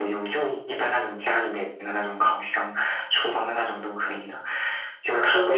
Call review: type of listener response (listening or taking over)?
listening